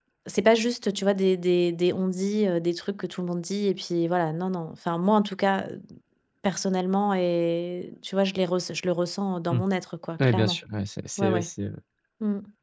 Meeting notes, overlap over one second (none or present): none